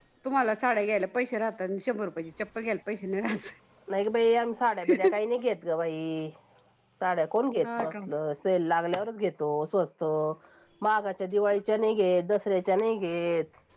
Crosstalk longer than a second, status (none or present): none